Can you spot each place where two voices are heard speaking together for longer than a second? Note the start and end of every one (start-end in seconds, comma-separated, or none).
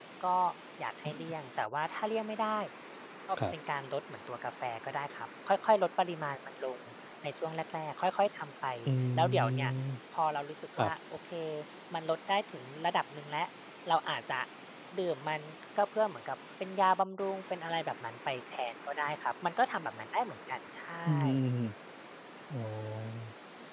none